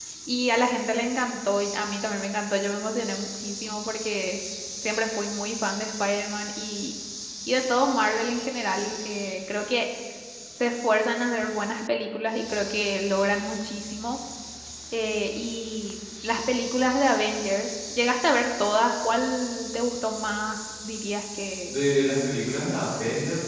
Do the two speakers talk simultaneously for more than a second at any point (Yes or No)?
No